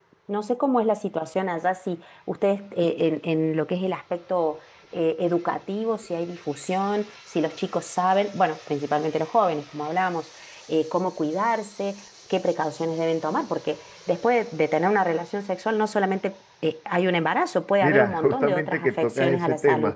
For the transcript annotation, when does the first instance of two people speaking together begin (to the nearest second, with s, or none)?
18 s